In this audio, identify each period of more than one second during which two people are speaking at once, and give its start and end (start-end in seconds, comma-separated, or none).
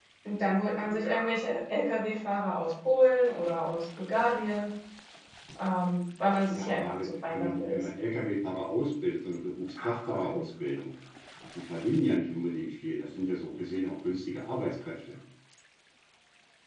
6.5-7.8